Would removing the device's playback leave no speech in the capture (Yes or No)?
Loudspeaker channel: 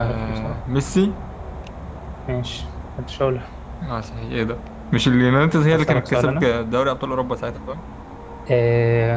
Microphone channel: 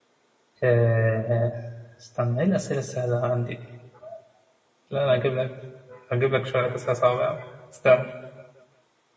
No